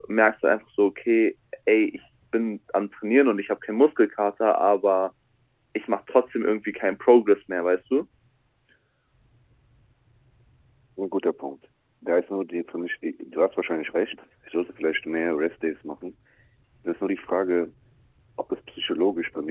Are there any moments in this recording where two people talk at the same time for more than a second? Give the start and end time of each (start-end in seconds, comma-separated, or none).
none